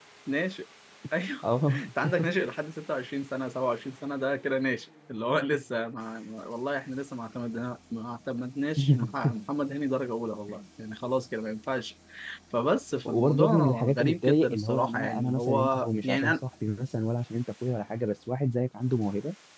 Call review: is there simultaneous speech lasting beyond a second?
Yes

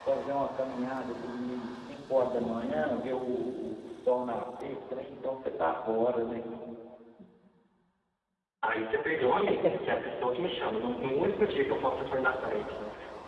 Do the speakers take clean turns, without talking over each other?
Yes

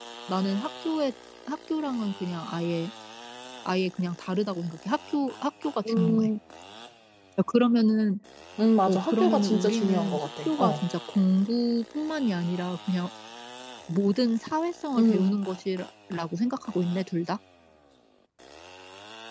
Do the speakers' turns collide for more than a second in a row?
Yes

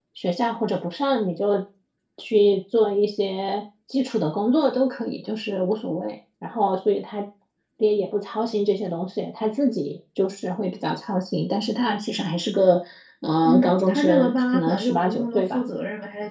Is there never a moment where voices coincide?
No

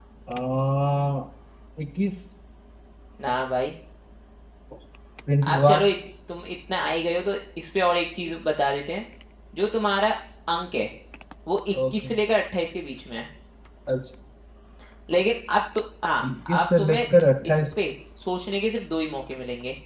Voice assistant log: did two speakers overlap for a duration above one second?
No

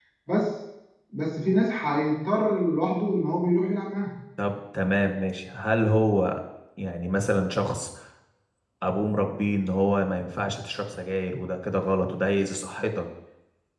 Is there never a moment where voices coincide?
Yes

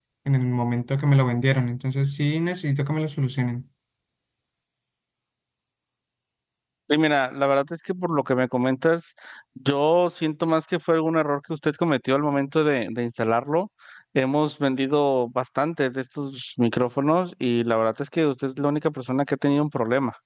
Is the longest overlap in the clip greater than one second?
No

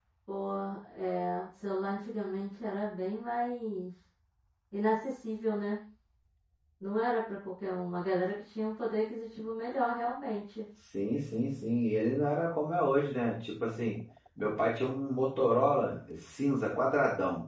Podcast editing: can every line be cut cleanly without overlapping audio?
Yes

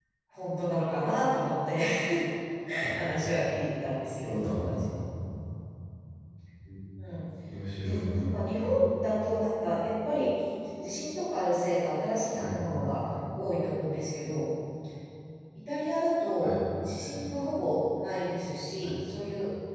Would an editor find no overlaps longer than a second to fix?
Yes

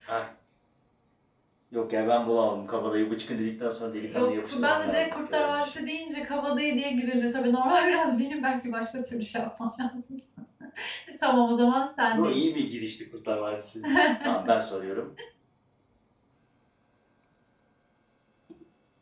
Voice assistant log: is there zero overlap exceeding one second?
No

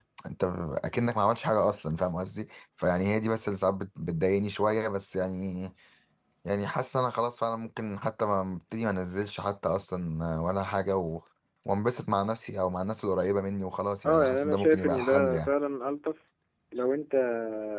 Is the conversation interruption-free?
No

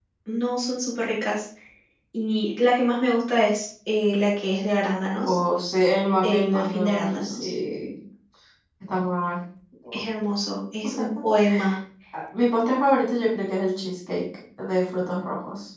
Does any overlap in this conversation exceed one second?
Yes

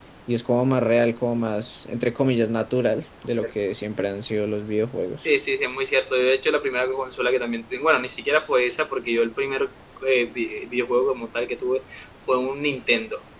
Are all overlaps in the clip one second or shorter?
Yes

